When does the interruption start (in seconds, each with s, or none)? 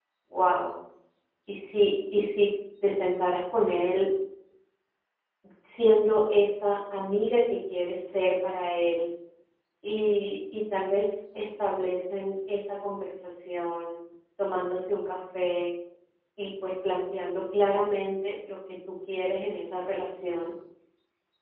none